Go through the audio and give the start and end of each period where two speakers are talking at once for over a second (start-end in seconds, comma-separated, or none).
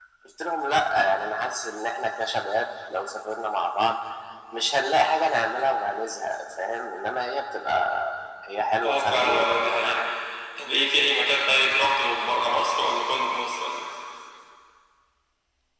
8.8-10.0